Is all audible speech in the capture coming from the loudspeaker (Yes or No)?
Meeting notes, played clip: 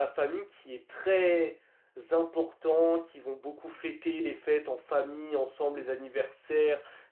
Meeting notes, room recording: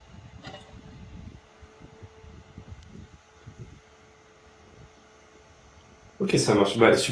No